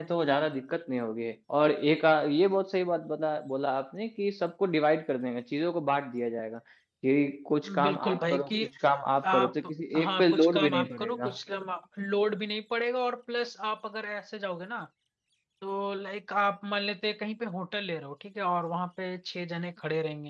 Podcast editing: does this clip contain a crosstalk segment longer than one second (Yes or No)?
Yes